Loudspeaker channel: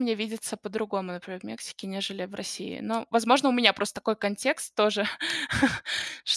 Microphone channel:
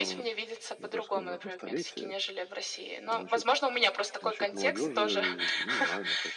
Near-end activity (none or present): present